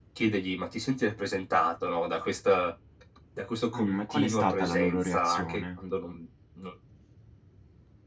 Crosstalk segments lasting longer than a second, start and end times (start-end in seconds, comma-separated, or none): 3.7-5.8